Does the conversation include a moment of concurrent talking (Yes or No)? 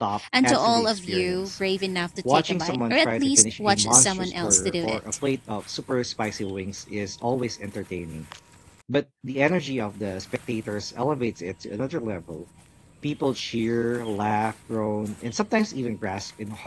Yes